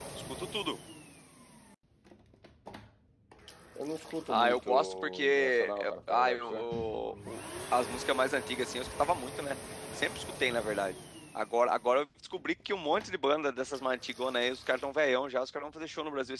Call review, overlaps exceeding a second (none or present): present